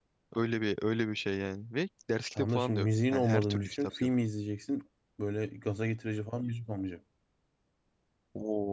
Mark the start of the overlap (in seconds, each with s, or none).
2.4 s